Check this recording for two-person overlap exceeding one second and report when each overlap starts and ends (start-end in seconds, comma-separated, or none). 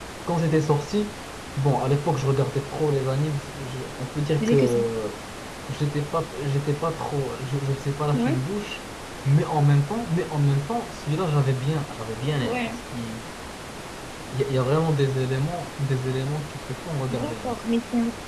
none